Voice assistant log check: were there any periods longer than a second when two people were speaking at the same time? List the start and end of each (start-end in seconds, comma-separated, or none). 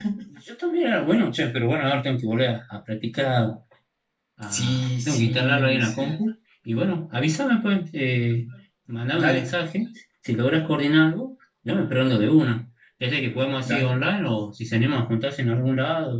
4.5-6.1